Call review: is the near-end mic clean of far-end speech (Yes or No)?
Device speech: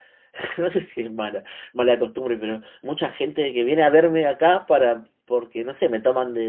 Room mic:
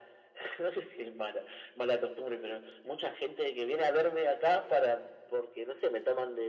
No